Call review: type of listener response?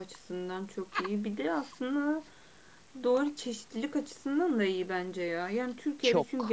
listening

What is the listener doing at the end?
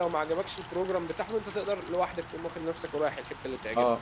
taking over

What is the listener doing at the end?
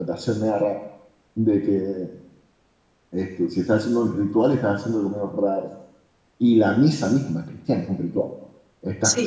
listening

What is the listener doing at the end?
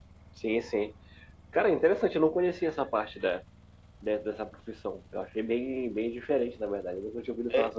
taking over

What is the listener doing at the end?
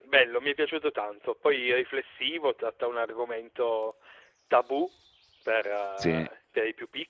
listening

